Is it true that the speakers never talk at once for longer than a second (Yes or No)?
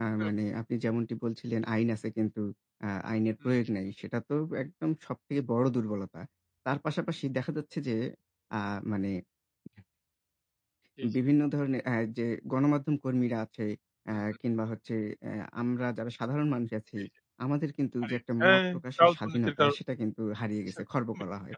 No